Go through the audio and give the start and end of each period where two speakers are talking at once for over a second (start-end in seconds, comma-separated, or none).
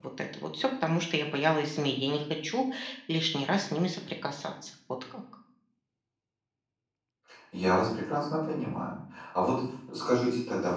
none